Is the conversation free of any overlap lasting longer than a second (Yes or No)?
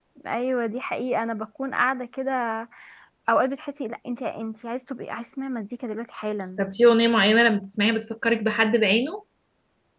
Yes